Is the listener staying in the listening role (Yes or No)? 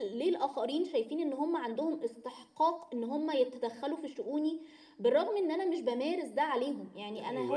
No